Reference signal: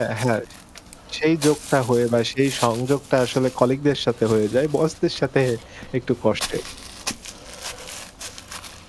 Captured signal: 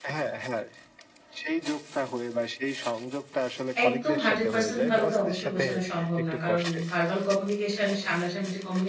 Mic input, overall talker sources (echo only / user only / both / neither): both